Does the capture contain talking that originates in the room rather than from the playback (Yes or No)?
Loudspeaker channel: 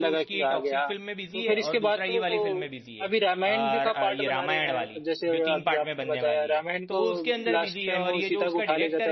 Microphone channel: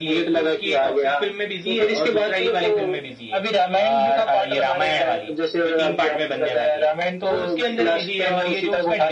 No